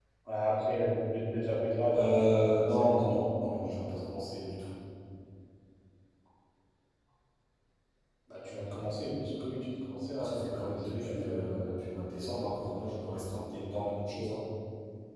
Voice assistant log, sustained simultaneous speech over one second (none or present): present